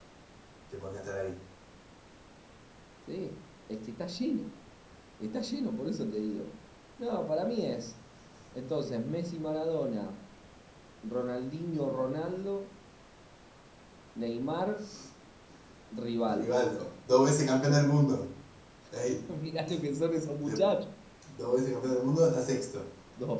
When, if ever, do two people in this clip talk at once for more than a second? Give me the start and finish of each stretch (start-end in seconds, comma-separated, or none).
none